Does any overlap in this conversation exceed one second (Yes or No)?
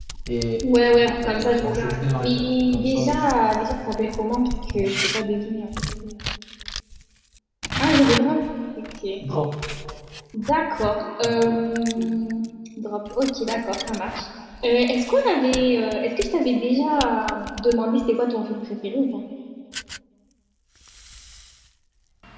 Yes